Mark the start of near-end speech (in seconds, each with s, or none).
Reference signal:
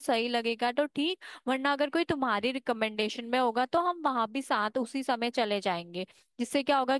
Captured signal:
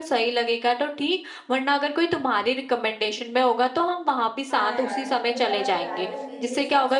4.5 s